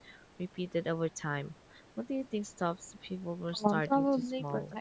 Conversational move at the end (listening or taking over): taking over